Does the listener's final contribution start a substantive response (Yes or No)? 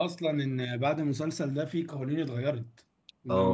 Yes